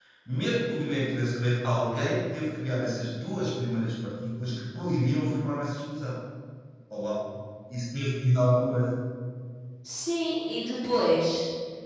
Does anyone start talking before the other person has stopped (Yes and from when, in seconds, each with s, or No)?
No